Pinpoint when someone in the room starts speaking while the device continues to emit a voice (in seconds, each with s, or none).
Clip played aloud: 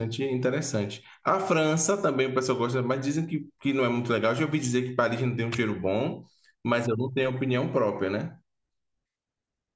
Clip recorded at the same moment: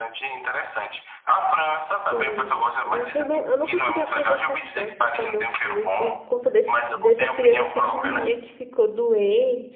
1.9 s